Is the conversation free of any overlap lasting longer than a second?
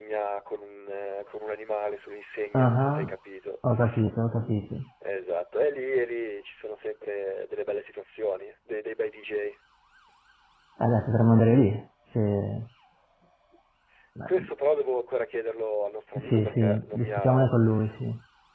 No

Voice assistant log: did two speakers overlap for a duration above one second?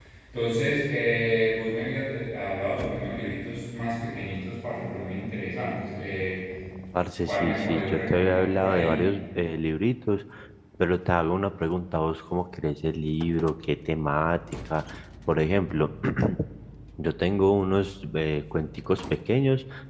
Yes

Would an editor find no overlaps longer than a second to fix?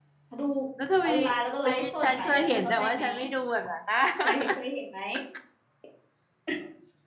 No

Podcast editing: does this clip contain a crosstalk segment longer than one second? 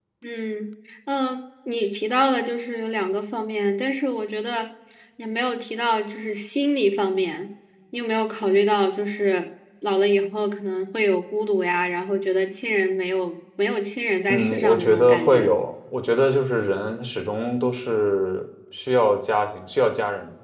Yes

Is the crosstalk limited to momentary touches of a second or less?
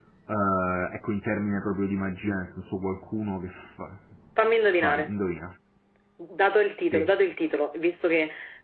Yes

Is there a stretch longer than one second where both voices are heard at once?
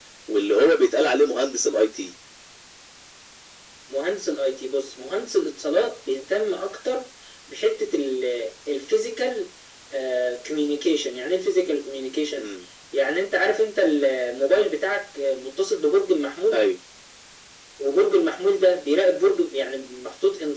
No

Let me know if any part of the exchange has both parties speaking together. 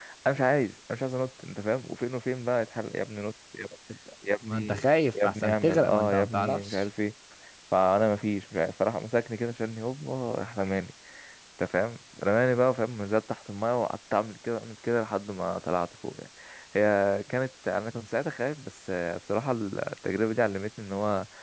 Yes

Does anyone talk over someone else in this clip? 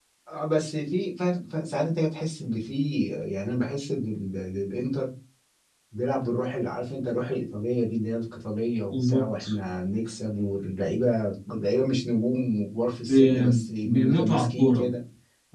Yes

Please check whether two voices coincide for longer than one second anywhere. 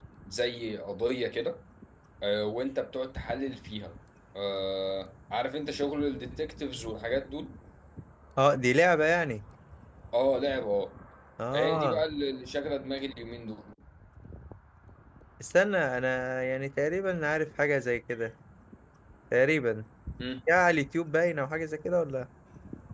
No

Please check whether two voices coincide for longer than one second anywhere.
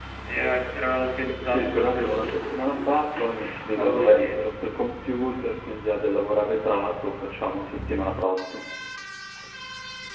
Yes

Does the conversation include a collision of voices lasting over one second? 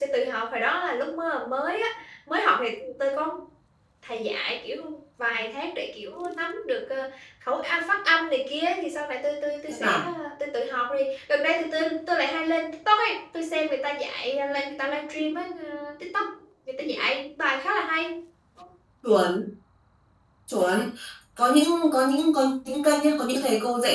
No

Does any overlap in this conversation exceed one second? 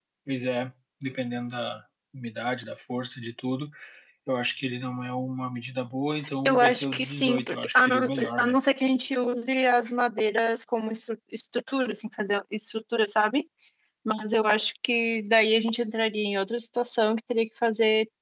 Yes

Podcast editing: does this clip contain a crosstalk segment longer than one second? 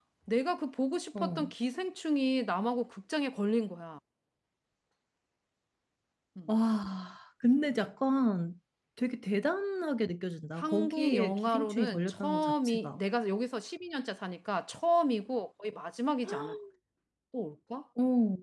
Yes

